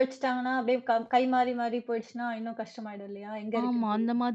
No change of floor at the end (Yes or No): No